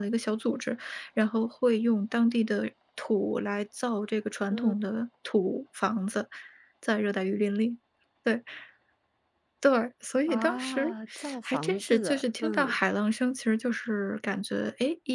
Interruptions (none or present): present